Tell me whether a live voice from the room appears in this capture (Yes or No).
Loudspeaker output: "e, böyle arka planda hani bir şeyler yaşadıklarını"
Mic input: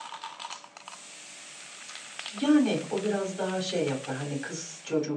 Yes